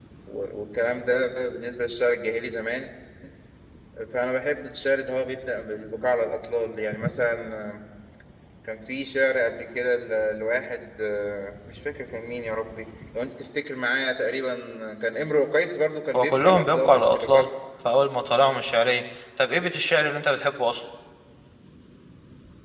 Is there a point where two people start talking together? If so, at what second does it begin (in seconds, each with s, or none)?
16.1 s